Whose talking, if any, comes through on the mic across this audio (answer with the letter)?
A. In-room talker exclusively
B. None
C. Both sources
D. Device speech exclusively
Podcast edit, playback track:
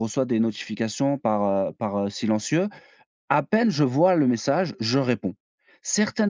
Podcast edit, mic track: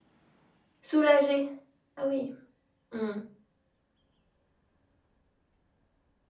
A